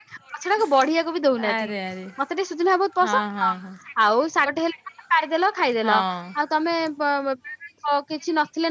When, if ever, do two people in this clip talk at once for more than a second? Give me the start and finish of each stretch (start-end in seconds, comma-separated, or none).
none